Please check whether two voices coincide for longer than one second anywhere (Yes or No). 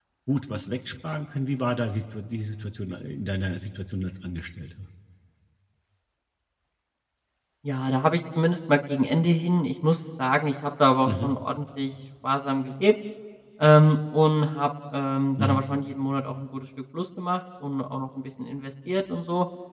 No